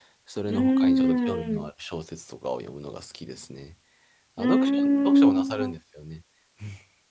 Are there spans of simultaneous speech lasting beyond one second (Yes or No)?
Yes